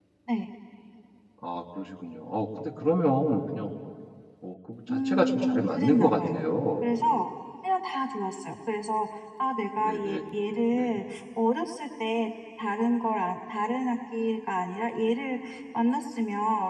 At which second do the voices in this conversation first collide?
5.1 s

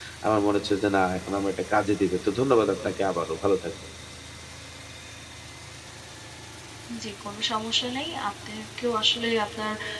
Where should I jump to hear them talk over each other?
none

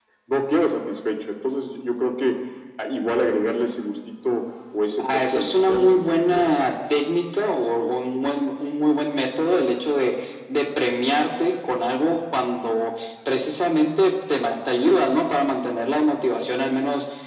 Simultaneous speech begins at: 5.0 s

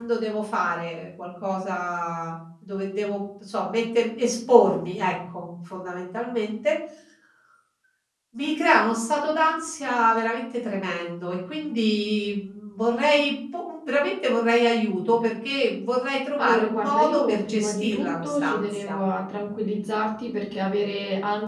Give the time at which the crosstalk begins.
16.4 s

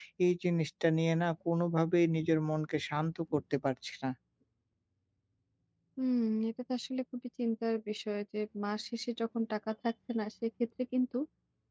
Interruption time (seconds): none

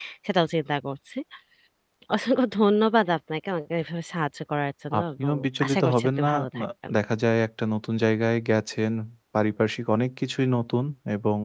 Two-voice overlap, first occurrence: 4.9 s

